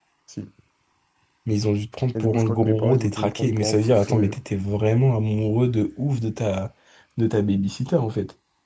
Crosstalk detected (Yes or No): Yes